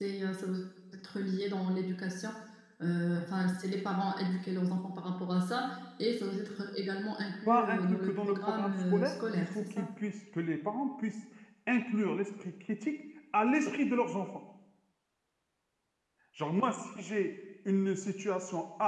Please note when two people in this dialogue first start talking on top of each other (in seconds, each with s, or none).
7.5 s